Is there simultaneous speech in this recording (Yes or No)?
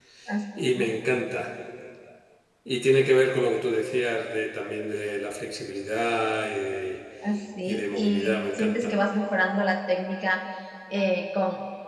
Yes